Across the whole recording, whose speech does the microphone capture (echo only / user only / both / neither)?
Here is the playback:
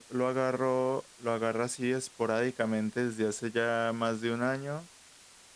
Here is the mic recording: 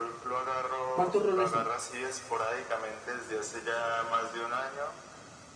both